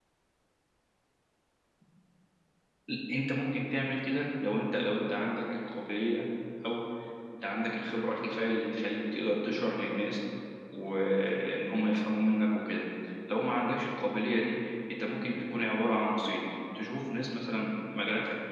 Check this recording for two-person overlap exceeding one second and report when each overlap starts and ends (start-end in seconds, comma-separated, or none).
none